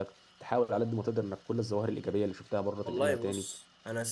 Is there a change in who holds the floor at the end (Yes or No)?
Yes